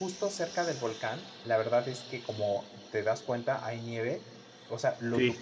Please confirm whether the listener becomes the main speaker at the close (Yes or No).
No